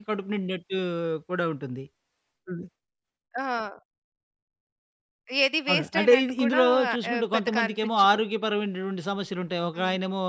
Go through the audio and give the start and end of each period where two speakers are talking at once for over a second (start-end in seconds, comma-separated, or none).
5.7-8.0